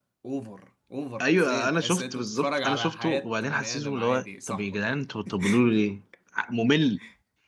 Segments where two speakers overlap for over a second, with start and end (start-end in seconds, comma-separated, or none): 1.2-4.8